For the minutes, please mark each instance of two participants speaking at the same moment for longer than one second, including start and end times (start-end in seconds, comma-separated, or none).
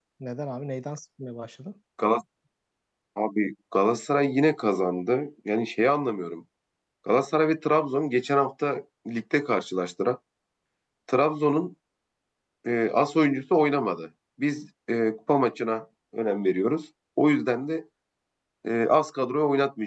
none